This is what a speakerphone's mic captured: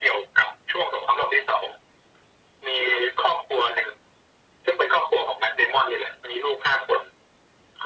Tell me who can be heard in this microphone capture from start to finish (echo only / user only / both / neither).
echo only